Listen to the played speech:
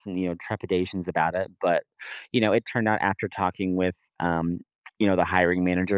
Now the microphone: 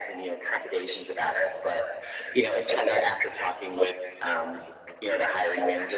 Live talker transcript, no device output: none

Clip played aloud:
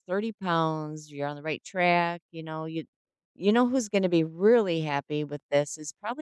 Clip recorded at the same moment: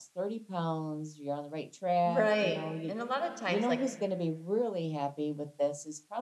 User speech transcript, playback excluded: Right, and a lot of times, like,

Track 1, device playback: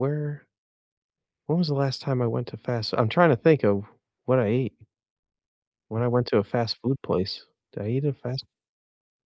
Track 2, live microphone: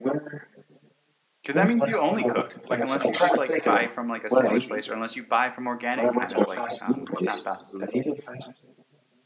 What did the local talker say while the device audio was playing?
Because that means you only cook, like, unless you just, like, buy from, like, a sandwich place or unless you buy from organic kind of like, um, not fast food, but

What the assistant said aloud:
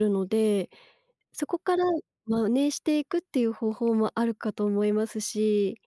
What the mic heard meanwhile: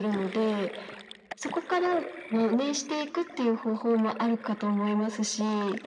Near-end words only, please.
none

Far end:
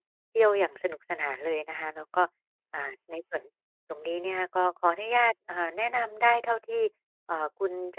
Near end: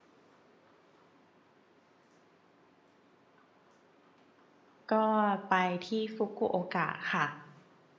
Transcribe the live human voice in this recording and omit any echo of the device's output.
ก็ไปที่ Fukuoka ค่ะ

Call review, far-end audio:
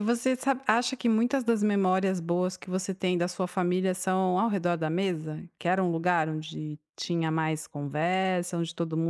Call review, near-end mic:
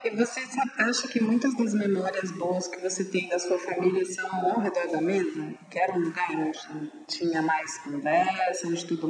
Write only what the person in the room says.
none

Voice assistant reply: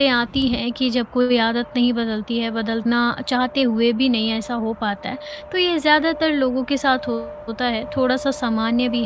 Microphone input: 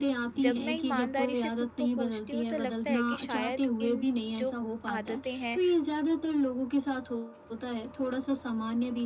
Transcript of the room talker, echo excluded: जब मैं ईमानदारी से खुद को पूछती हूँ, तो लगता है कि शायद इन जो आदतें हैं,

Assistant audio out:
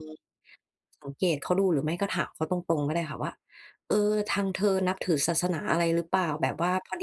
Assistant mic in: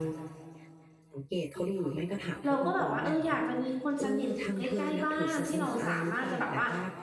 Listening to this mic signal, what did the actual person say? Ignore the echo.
เราก็แบบว่าเอออยากจะมีคนสนิทอยู่ใกล้ๆบ้านที่เราสามารถจะแบบว่า

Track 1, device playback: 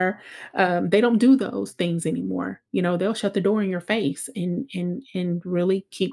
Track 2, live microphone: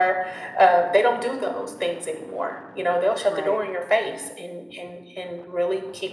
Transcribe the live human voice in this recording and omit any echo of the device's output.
Right.

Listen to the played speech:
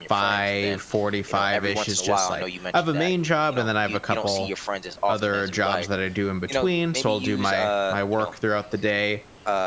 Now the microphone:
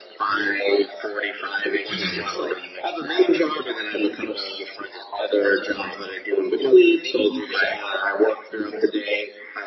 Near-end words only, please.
hmm

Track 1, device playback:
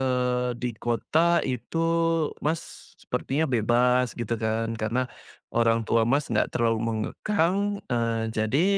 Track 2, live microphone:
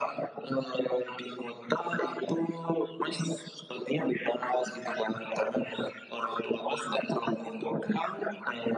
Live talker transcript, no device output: none

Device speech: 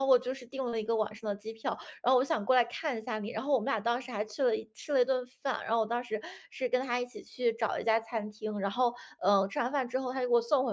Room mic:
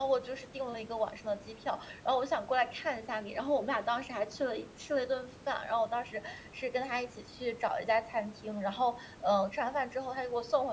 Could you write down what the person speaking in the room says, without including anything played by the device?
none

